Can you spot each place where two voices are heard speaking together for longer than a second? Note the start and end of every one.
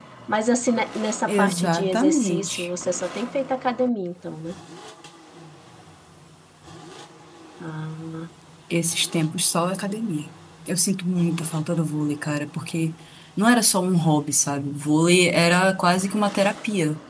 1.3-2.7

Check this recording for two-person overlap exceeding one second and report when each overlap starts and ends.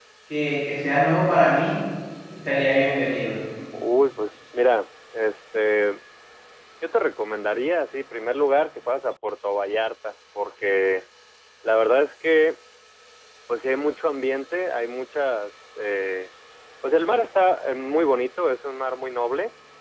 none

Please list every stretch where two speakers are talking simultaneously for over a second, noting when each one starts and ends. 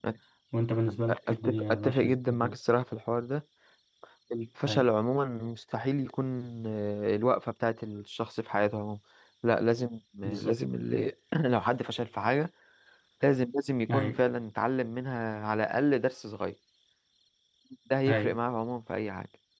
1.1-2.6

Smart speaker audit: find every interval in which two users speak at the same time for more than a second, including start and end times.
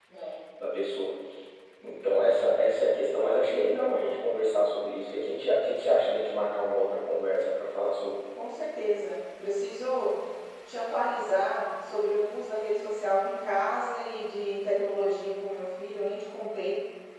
none

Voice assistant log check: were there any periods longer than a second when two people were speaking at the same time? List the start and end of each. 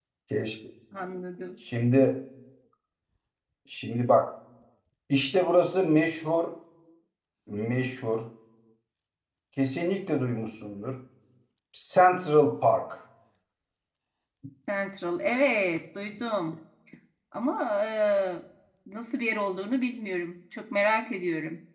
none

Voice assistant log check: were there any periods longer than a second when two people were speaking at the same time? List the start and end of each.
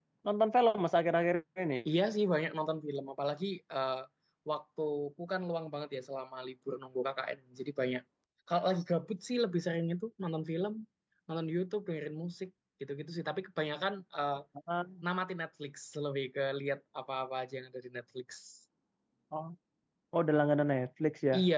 none

